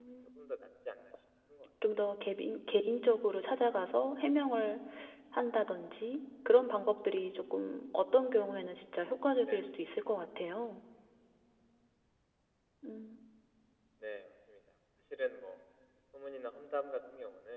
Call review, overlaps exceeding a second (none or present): none